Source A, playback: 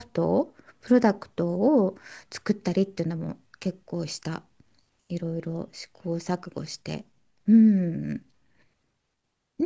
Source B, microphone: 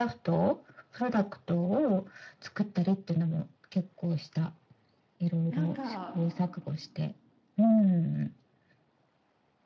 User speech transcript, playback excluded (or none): なんか、